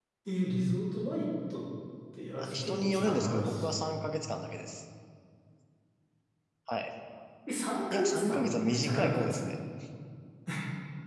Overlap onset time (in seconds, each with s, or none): 2.4 s